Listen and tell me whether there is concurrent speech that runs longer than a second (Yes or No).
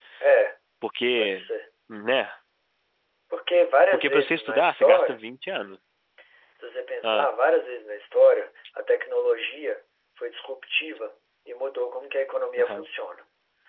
Yes